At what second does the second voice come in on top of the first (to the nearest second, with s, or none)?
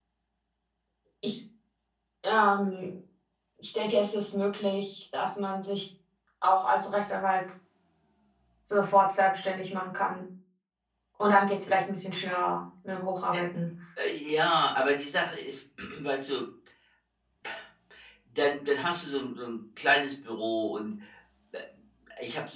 none